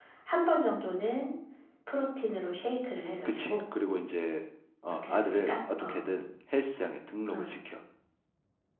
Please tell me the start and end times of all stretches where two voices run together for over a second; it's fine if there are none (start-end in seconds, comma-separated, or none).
4.9-6.1